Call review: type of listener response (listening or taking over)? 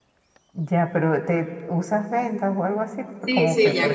taking over